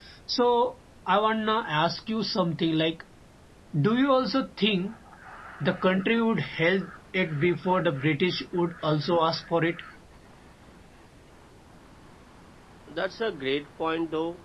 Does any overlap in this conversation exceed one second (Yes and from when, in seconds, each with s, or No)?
No